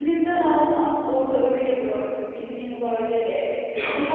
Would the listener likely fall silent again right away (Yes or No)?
Yes